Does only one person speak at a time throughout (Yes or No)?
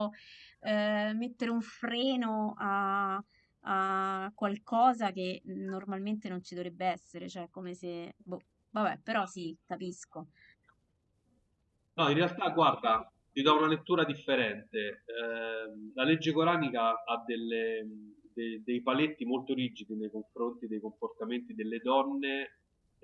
Yes